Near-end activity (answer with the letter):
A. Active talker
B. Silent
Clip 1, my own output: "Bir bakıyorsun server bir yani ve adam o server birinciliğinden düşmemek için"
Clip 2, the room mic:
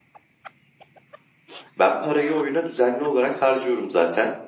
A